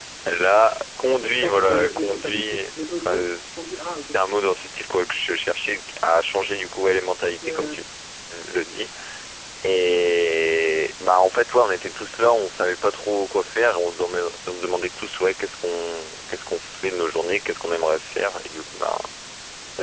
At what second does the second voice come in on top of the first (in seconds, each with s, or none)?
1.2 s